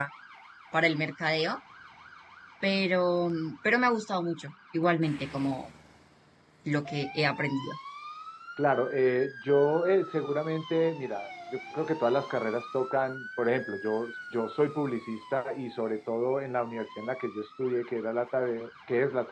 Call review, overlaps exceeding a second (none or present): none